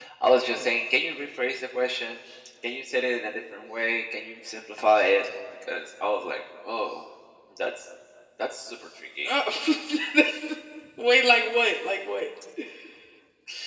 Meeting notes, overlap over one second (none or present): none